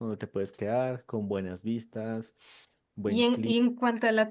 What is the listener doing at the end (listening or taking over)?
taking over